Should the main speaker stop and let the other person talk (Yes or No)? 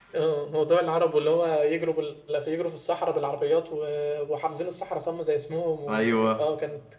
No